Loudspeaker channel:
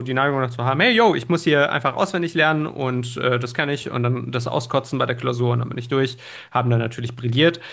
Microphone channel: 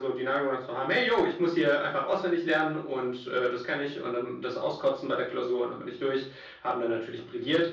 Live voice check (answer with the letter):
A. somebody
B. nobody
B